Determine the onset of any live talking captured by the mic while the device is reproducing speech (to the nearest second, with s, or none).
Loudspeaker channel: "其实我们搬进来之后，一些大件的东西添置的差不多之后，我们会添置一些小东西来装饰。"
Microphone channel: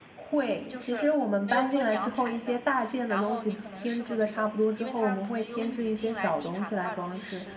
1 s